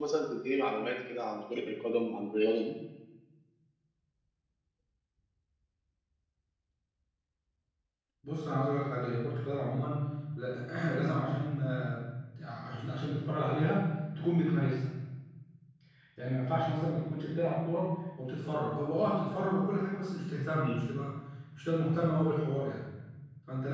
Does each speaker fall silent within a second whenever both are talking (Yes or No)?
Yes